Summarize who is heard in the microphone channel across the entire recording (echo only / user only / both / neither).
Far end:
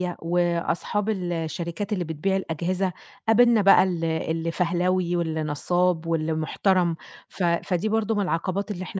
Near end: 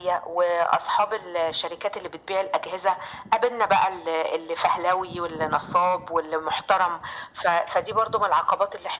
echo only